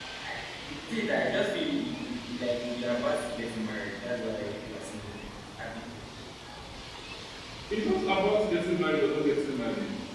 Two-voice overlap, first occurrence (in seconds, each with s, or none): none